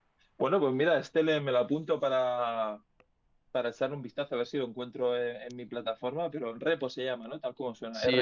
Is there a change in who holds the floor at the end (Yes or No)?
Yes